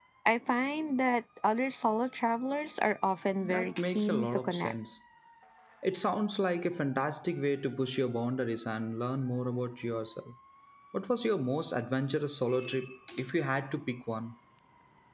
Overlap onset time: 3.4 s

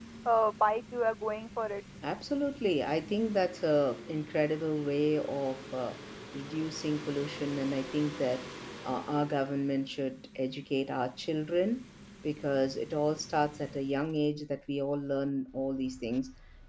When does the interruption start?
none

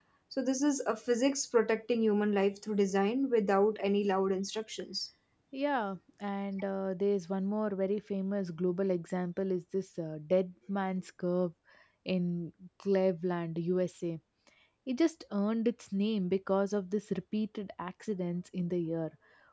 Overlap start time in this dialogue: none

